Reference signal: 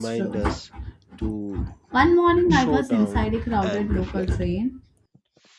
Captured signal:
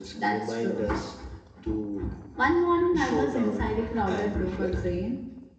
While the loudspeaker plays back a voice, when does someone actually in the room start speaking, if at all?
none

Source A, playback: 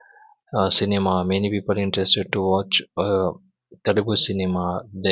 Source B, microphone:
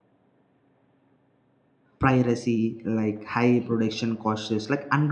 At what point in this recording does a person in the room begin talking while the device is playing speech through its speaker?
2.0 s

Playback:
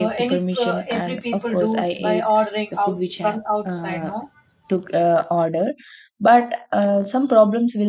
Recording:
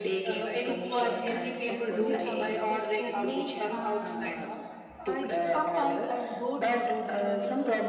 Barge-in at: 0.6 s

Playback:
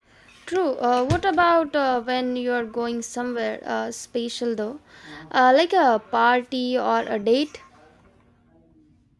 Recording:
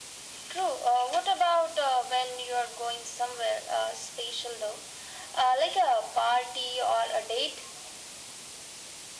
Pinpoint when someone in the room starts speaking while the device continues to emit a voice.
none

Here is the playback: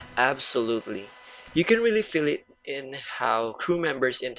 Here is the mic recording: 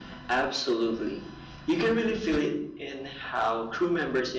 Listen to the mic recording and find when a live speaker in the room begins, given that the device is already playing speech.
none

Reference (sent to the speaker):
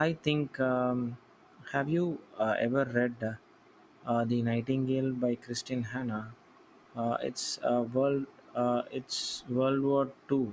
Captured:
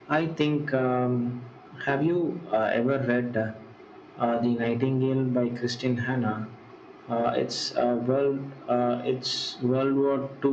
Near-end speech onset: none

